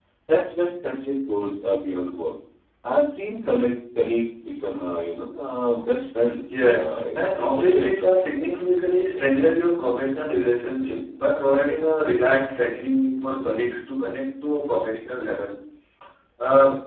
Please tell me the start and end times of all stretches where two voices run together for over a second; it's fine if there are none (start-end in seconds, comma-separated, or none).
6.5-7.9